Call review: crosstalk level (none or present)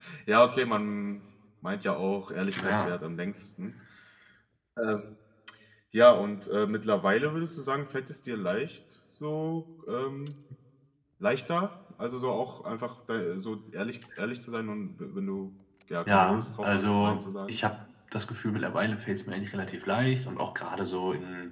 present